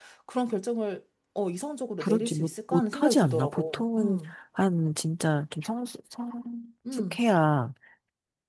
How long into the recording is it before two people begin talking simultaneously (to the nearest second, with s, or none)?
2 s